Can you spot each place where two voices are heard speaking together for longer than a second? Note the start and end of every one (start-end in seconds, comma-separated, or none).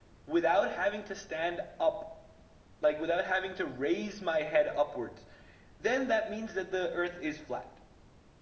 none